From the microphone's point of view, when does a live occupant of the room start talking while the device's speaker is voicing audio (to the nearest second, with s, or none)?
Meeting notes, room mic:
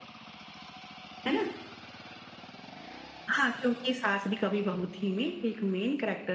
none